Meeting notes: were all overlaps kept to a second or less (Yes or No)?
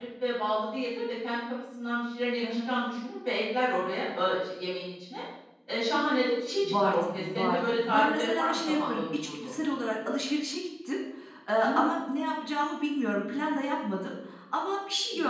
No